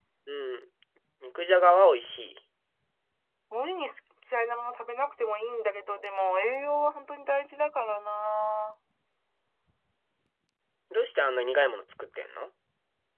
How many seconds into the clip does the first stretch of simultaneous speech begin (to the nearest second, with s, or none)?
none